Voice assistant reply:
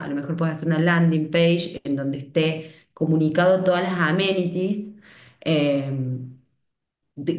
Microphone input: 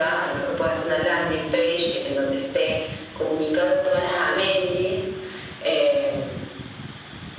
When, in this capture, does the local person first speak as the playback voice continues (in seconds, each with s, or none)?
none